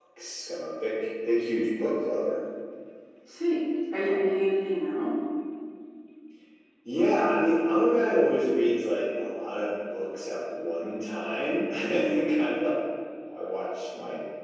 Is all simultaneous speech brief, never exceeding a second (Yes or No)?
Yes